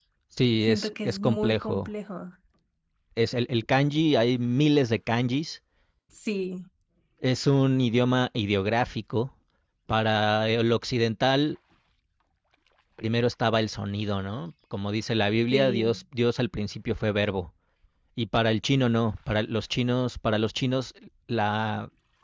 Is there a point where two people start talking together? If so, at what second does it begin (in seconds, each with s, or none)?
0.7 s